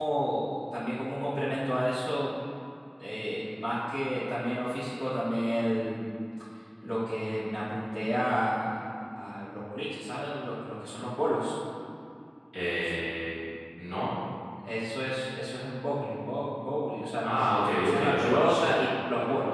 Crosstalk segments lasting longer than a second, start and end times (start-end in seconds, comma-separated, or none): 17.2-18.7